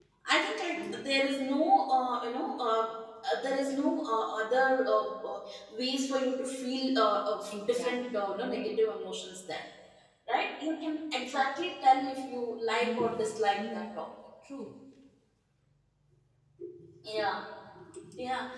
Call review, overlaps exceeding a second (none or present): present